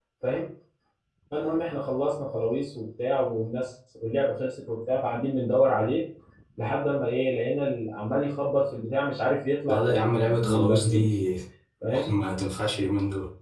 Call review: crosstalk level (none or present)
present